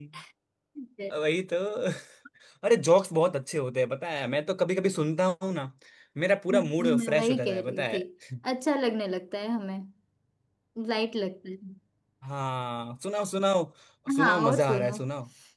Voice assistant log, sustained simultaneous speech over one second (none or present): present